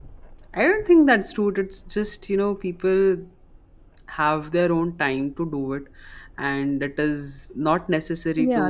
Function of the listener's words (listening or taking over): taking over